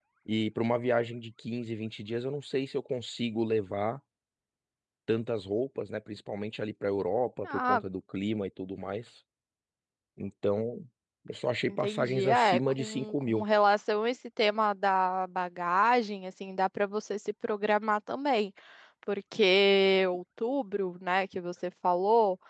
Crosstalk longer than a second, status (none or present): present